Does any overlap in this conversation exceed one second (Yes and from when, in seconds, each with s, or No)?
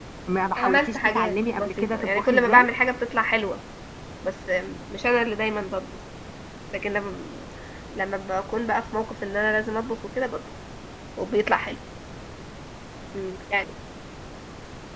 Yes, from 0.6 s